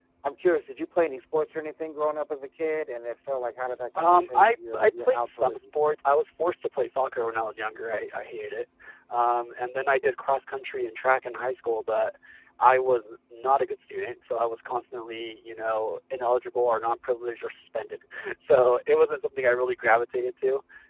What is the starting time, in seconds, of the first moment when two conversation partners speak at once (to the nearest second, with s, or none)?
4 s